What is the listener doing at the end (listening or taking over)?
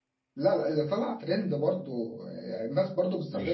taking over